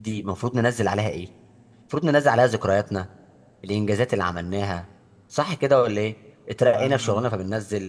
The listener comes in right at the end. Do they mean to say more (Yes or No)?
No